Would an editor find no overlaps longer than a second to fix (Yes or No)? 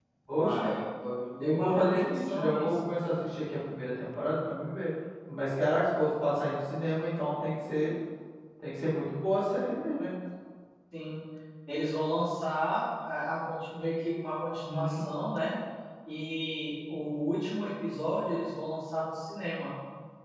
No